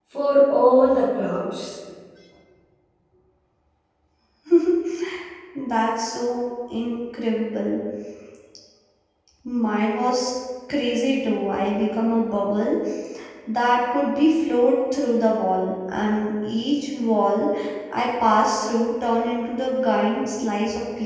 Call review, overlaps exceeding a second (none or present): none